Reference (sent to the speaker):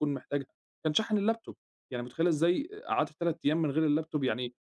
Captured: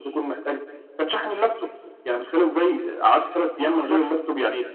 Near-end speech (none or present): present